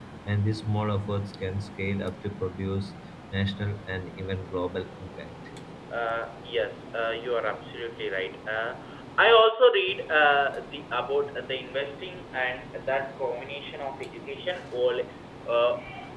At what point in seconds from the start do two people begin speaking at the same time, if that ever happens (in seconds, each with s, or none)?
none